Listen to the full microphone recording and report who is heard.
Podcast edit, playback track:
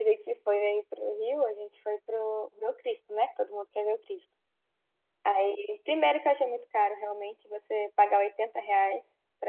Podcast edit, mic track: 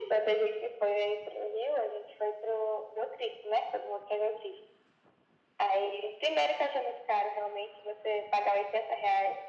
echo only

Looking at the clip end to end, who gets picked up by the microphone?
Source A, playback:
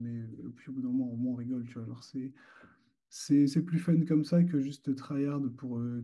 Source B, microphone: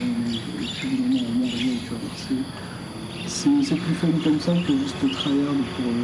echo only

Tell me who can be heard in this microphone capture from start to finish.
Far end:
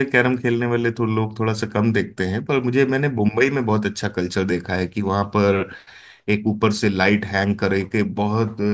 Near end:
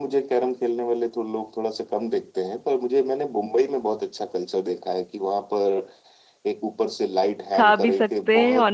both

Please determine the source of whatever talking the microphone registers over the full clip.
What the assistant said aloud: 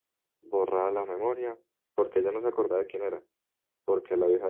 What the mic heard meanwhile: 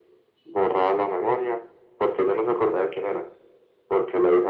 echo only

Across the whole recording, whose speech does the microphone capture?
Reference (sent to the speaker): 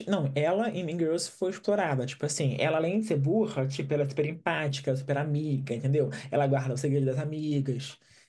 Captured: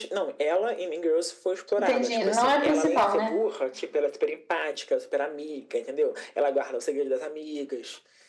both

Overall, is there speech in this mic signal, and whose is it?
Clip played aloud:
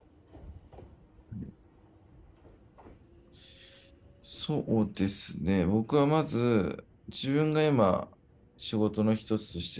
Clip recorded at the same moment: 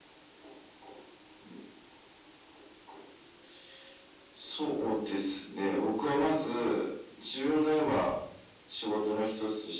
echo only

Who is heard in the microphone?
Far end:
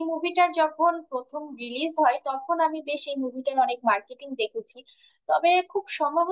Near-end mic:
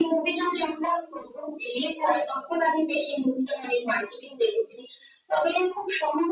echo only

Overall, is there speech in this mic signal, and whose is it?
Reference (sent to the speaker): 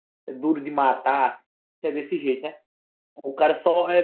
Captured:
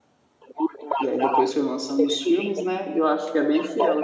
both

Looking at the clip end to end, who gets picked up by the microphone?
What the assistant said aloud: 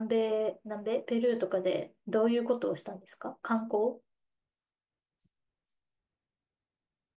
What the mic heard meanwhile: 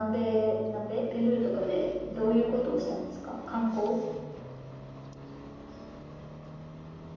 echo only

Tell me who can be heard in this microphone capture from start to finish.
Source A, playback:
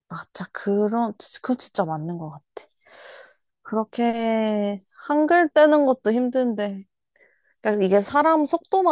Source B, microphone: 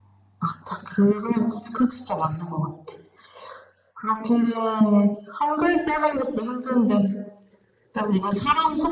echo only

